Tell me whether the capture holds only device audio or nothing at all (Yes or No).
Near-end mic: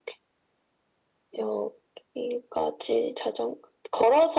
Yes